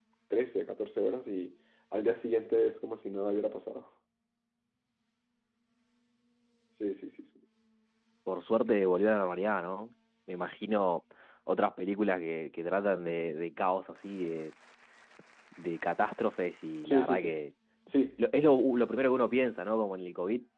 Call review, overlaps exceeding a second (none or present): none